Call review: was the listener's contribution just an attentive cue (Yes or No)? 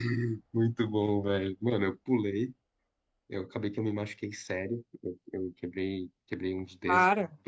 Yes